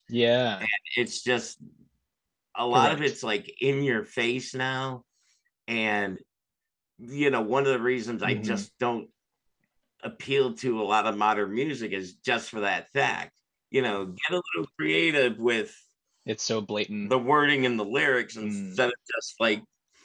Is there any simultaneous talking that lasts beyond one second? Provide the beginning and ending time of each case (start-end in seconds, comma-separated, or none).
none